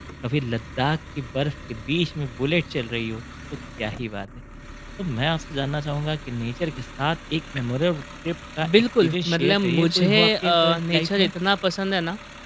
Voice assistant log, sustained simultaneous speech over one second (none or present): present